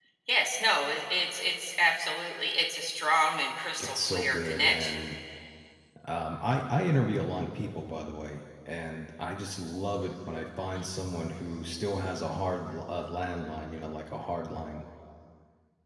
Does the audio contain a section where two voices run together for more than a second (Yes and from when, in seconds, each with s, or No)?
Yes, from 3.8 s